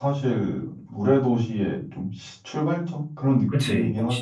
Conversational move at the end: taking over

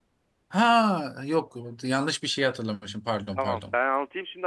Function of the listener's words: taking over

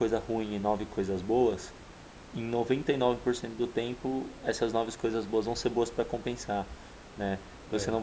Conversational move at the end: listening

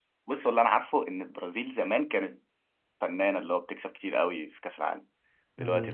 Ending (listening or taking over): taking over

